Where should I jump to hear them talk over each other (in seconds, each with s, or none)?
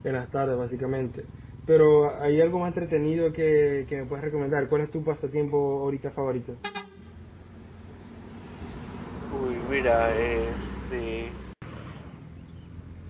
none